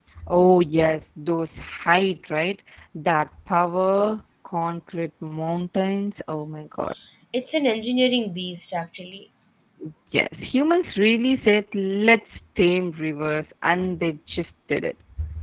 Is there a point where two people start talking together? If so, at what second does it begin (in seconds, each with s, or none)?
none